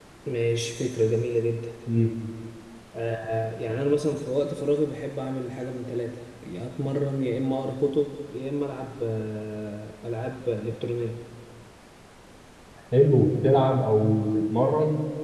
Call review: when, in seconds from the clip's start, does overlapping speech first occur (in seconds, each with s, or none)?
none